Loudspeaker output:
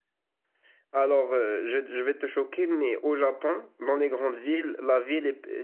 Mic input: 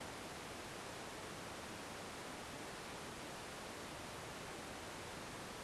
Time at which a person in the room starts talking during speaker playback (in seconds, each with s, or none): none